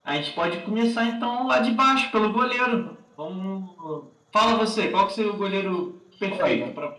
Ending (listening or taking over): taking over